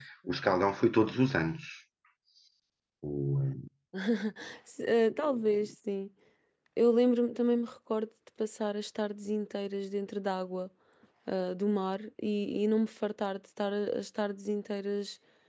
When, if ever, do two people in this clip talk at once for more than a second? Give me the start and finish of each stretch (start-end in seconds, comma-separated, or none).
none